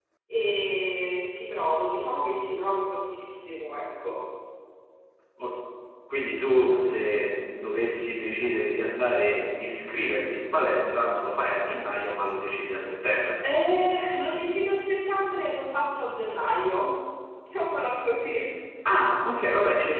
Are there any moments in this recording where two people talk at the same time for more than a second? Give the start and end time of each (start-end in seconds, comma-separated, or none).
none